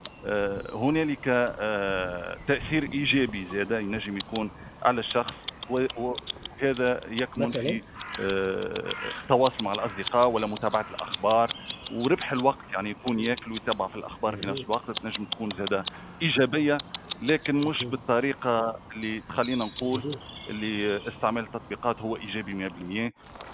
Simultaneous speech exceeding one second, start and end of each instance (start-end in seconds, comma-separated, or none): none